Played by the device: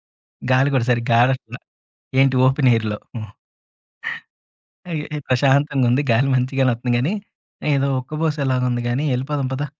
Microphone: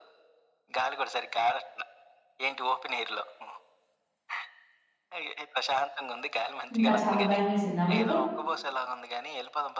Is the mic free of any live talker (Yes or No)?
No